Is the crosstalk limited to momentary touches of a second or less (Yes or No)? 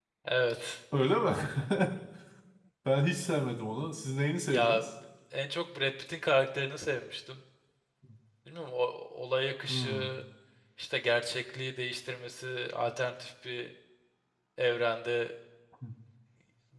Yes